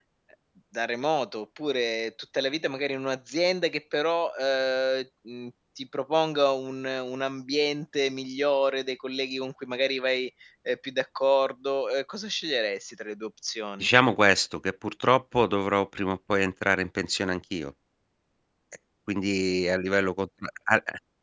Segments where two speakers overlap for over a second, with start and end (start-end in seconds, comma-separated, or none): none